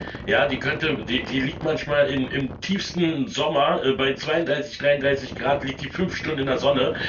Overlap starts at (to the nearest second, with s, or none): none